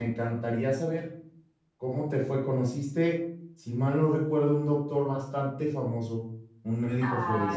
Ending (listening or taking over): taking over